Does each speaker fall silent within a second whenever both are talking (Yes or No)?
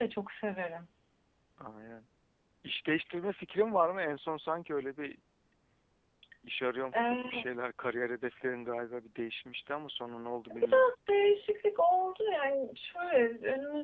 Yes